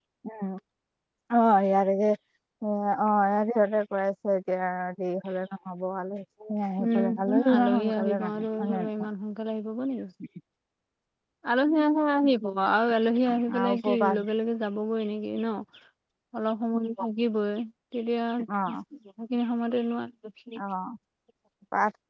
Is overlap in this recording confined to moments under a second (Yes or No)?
No